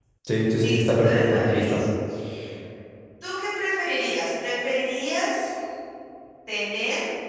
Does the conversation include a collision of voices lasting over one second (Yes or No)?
Yes